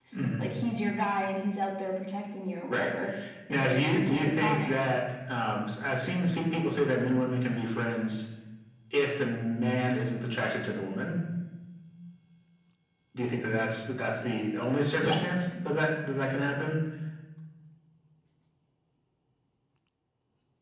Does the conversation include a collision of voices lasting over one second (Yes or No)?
Yes